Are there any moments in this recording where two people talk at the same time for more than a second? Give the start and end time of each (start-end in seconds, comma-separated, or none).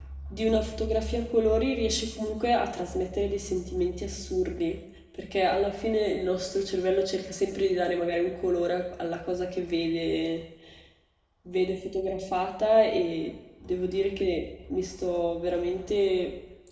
none